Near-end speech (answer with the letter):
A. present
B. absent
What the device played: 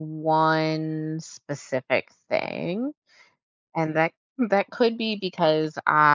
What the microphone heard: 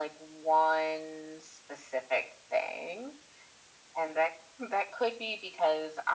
B